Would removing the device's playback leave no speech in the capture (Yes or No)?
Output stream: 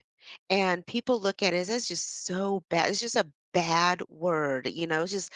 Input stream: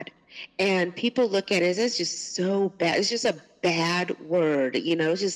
Yes